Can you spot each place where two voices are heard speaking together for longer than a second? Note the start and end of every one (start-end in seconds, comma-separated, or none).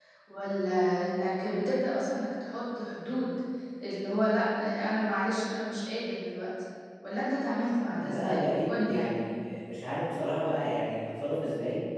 7.9-9.2